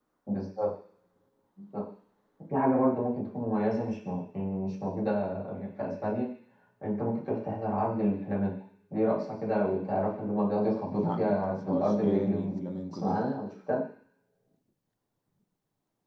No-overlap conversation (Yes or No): No